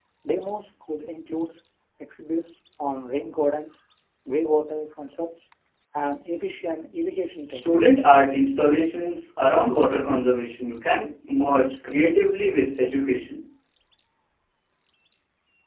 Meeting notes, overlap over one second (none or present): none